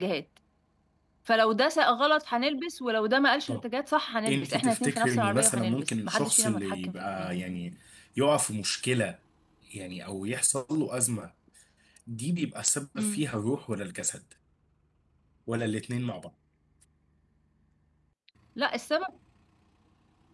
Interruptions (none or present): present